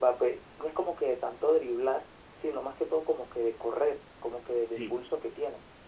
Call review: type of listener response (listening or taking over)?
listening